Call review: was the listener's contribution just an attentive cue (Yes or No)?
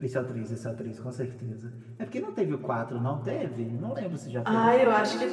No